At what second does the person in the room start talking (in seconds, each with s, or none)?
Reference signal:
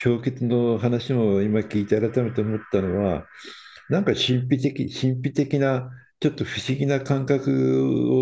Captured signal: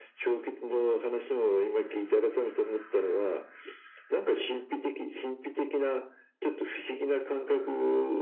none